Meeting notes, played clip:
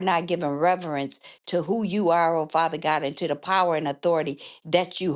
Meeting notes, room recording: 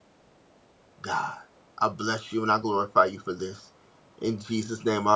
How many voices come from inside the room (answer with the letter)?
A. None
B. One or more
B